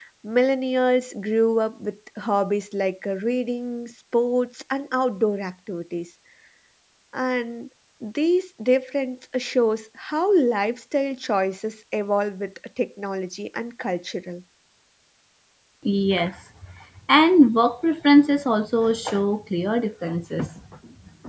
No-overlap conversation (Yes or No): Yes